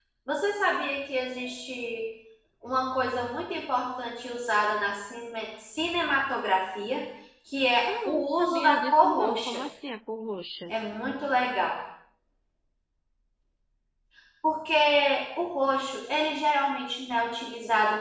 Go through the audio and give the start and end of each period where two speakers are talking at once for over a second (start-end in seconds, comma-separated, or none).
7.8-9.6